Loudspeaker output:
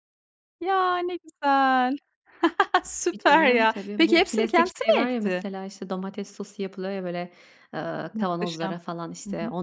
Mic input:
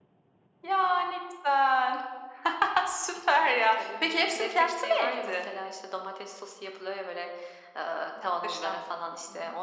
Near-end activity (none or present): none